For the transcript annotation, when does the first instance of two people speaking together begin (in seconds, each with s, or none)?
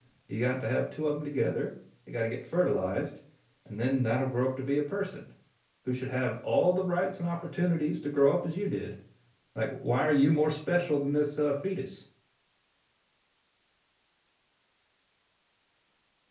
none